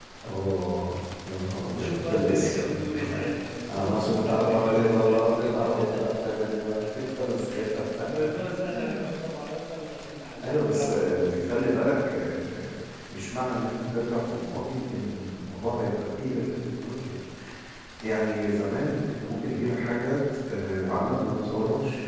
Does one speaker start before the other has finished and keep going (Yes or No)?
Yes